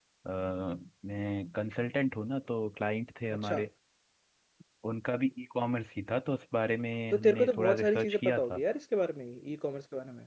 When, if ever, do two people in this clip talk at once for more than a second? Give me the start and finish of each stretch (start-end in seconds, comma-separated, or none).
7.1-8.6